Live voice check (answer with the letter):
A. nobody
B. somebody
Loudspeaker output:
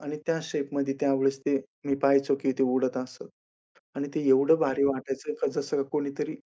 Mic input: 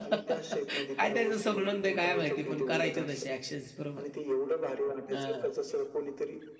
B